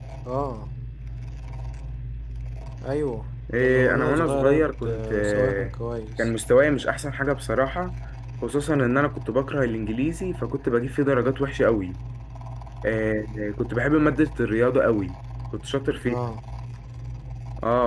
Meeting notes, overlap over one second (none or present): present